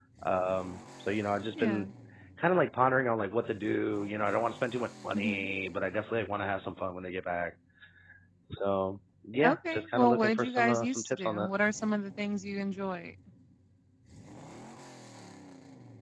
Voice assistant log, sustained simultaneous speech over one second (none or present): present